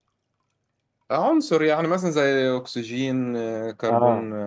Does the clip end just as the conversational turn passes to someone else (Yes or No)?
Yes